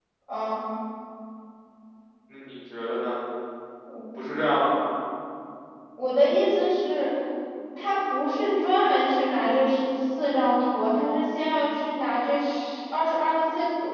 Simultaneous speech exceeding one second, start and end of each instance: none

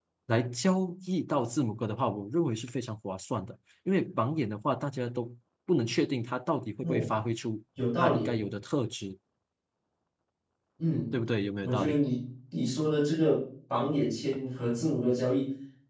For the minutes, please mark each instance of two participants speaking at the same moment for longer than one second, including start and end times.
none

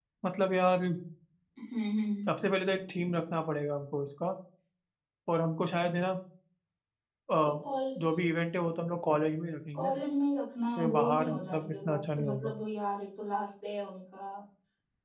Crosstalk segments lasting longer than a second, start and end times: 10.8-12.5

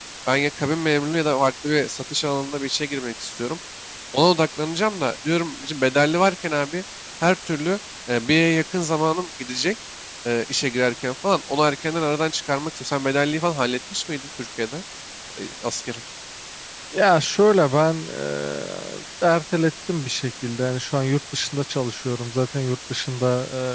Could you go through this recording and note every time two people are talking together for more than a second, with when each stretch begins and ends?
none

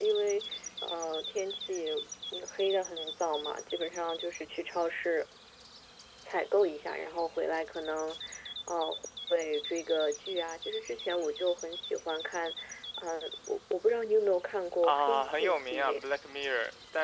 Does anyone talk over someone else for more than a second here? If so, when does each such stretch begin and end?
14.8-16.0

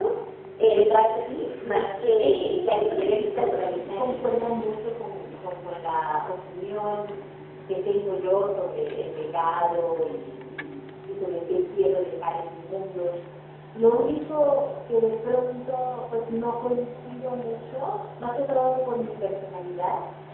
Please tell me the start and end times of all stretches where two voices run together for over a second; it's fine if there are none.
2.4-4.2

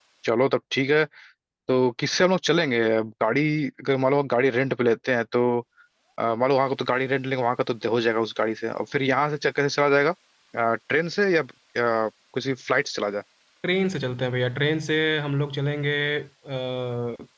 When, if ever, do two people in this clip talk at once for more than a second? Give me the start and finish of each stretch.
none

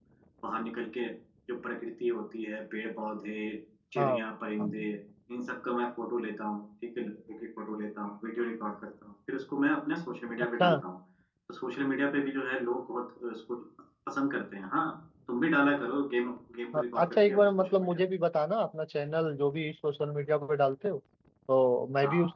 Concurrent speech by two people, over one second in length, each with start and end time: 16.7-18.0

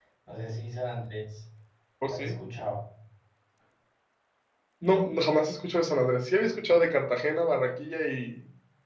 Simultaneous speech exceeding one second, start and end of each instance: none

